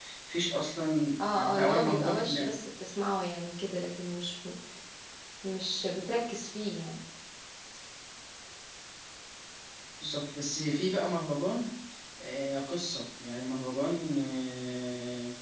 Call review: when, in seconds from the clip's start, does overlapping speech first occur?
1.2 s

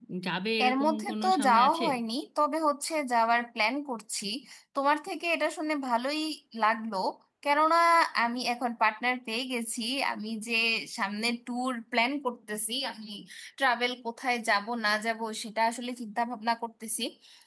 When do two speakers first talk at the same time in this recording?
0.6 s

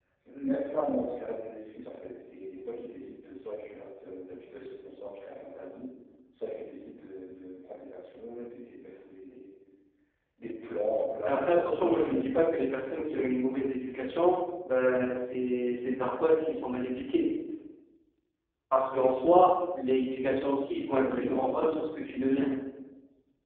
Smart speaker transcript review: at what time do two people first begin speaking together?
11.3 s

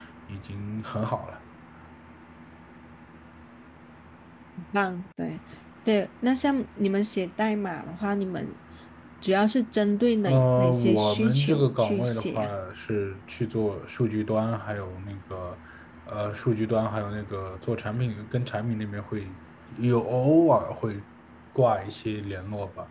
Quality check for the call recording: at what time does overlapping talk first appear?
10.2 s

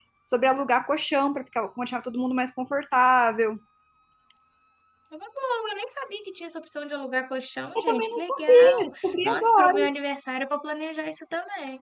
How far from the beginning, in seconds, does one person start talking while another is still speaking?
7.8 s

